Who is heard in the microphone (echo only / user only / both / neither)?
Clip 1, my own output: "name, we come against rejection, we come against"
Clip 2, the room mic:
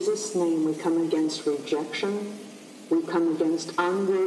echo only